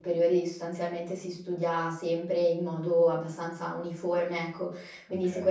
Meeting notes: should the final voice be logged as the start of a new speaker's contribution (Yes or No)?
No